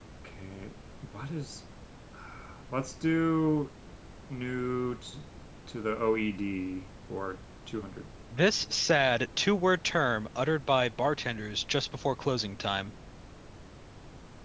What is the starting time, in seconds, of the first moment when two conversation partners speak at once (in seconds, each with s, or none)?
none